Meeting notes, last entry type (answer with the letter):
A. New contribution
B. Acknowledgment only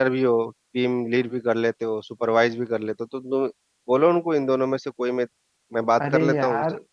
A